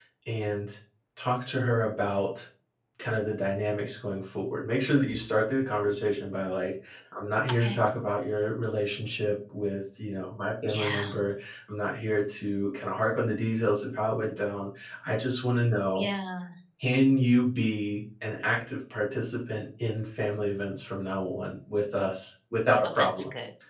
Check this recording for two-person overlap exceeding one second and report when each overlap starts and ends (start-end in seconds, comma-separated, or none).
none